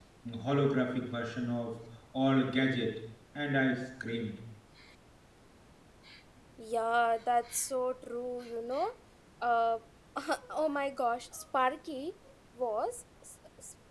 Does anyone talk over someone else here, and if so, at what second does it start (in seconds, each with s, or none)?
none